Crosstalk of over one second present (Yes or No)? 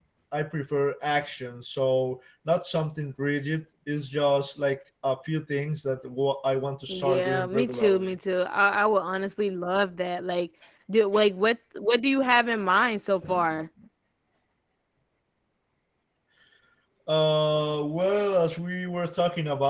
Yes